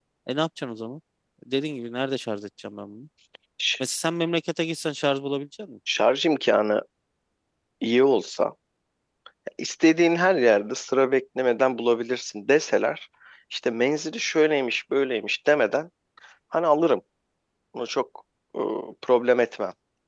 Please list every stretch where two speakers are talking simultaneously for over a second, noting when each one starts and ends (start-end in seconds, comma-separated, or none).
none